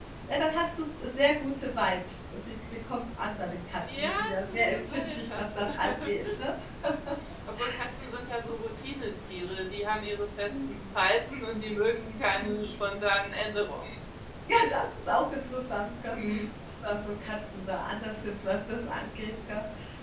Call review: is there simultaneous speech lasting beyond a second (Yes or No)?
Yes